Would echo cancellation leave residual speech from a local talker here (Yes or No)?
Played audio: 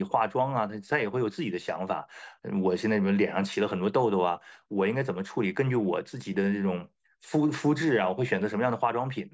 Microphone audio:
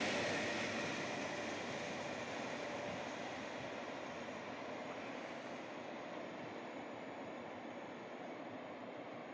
No